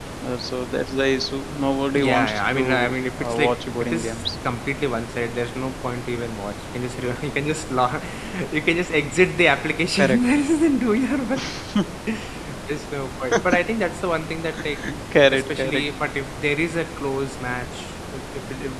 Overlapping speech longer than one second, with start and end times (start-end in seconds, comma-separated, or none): 1.9-4.4